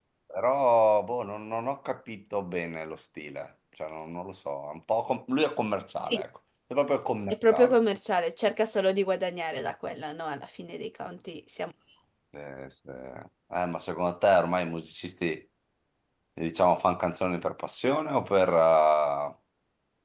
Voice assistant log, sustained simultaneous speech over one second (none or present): none